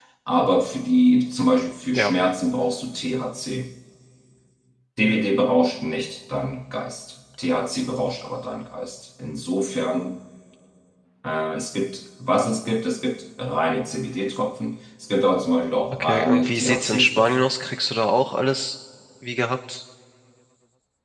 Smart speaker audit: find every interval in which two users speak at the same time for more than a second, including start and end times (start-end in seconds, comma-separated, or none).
15.9-17.4